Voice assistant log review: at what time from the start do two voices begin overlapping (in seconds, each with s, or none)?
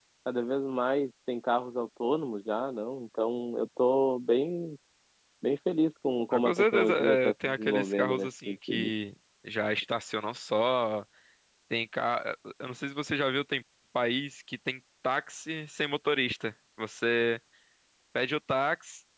6.3 s